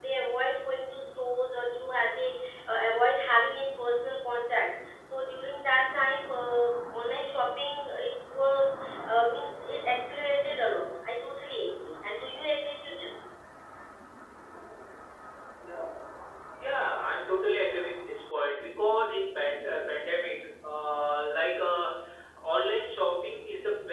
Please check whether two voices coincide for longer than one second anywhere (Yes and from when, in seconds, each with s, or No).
No